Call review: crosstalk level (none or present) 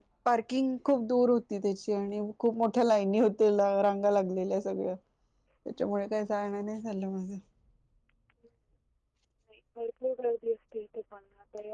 none